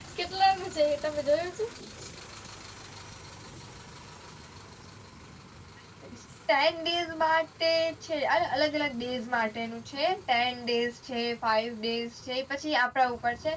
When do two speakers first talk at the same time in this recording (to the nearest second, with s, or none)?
none